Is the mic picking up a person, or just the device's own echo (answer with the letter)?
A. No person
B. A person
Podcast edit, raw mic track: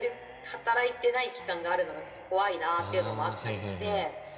B